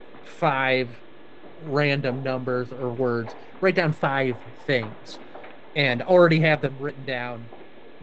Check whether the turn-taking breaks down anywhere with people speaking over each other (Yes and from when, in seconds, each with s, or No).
No